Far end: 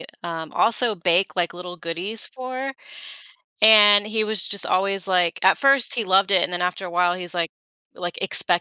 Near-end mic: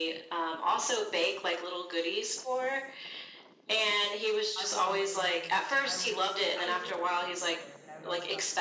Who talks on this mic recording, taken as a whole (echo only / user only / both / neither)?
both